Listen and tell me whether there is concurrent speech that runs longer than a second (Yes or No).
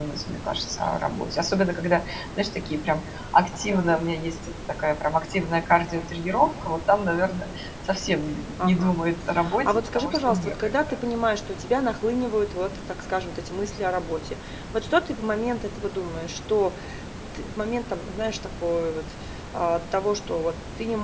Yes